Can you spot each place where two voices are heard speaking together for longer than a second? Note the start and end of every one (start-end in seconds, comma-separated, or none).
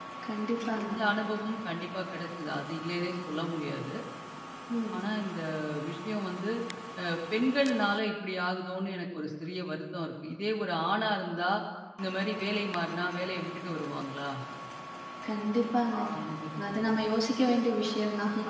none